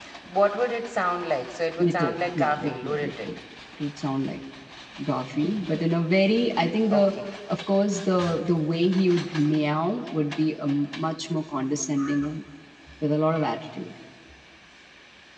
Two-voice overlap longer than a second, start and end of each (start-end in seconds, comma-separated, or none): 1.8-3.3